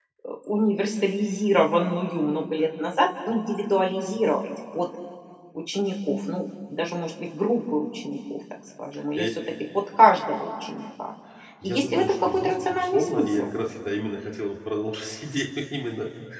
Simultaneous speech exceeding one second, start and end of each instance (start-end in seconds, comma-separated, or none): 11.6-13.5